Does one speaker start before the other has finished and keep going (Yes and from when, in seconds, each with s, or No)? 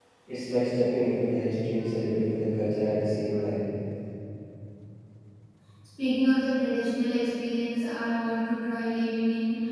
No